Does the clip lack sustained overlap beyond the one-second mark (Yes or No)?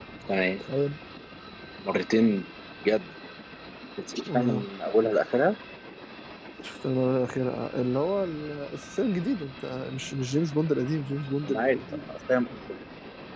Yes